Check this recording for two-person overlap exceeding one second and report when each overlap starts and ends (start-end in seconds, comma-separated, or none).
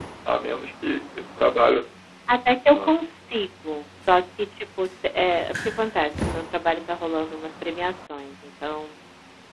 none